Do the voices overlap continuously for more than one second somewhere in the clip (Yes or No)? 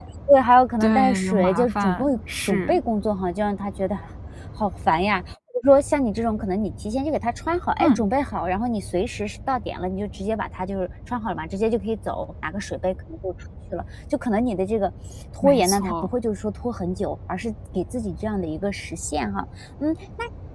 Yes